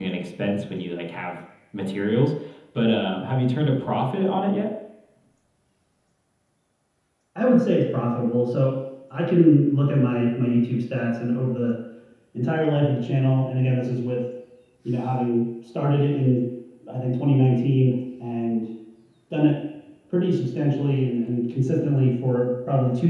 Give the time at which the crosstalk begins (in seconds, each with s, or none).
none